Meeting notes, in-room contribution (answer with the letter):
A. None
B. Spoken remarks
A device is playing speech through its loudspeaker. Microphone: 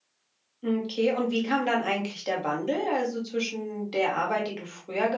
B